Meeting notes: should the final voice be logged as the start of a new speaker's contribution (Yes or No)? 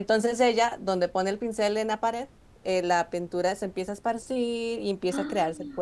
No